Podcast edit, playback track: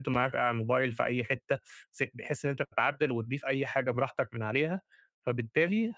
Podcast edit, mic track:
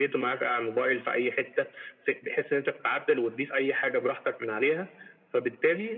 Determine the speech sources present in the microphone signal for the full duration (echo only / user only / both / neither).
echo only